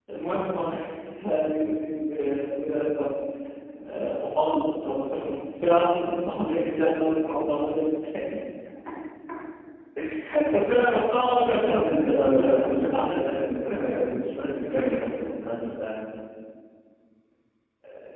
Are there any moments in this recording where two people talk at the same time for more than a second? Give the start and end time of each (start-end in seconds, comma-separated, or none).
11.7-13.3